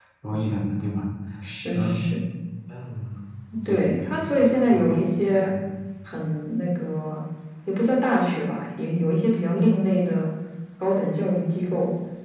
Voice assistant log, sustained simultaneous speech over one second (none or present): present